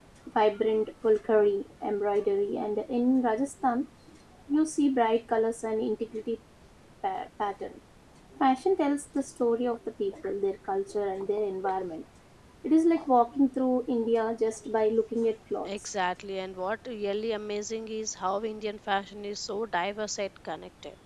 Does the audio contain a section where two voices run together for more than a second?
No

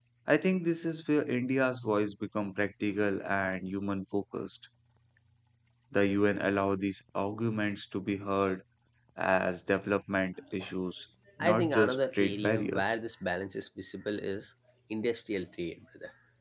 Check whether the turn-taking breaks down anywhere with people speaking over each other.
Yes, from 11.4 s

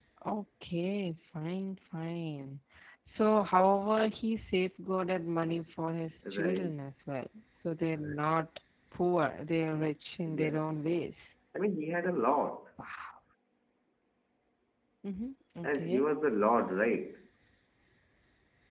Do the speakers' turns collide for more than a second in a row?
No

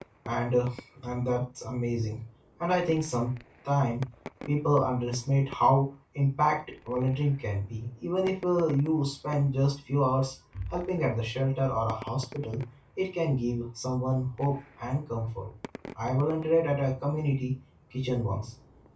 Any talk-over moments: No

